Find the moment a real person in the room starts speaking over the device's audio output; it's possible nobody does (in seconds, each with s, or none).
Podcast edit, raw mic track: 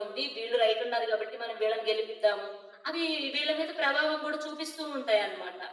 none